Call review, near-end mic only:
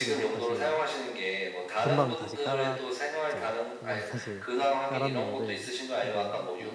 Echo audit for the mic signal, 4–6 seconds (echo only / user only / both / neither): both